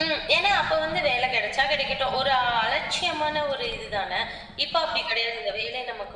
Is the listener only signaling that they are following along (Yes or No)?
Yes